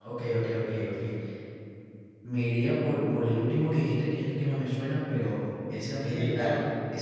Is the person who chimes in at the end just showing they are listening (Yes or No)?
Yes